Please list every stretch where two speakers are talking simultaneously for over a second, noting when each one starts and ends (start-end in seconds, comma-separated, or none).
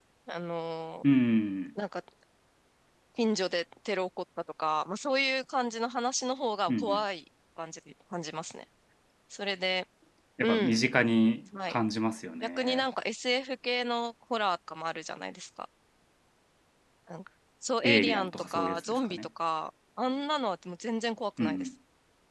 17.8-19.2